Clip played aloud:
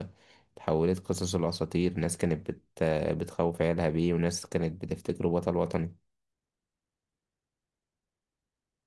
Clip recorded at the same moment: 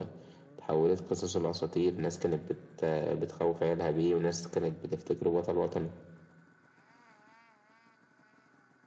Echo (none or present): present